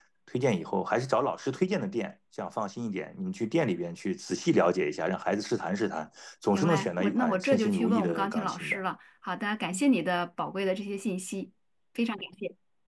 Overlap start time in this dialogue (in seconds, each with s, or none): 6.5 s